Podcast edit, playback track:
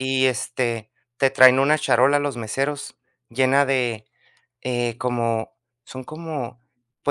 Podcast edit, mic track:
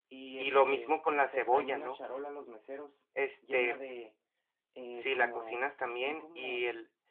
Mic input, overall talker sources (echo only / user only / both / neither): both